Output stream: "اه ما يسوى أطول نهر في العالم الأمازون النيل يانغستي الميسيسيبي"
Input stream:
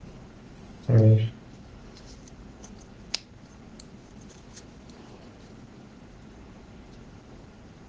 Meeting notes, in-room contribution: present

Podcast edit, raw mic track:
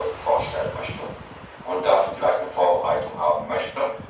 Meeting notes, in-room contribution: none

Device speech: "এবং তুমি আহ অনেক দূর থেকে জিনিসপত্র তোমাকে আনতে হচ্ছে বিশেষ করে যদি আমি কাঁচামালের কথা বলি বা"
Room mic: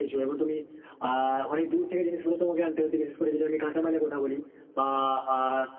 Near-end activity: none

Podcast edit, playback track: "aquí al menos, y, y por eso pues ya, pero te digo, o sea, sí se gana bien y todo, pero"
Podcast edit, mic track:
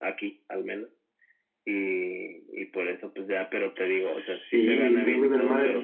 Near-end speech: present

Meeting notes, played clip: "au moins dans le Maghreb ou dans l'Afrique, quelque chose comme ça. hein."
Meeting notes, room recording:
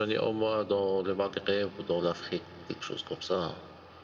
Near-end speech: none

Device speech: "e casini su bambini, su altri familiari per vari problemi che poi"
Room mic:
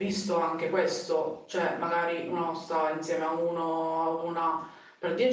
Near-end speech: present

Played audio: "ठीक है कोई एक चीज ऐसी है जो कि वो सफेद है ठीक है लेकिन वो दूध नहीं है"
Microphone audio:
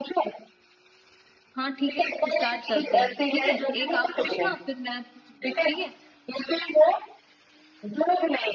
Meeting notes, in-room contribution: present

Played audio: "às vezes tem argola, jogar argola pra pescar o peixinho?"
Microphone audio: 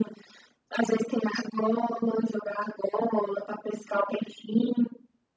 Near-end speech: none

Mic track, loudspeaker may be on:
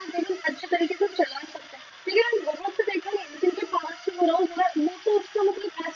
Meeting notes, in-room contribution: none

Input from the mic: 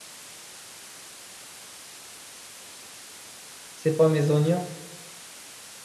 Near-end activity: present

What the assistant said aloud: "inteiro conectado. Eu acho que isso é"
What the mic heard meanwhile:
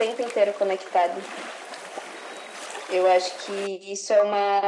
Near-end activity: none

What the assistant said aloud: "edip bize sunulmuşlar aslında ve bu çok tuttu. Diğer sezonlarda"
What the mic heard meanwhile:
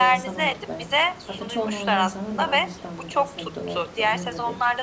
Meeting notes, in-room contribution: present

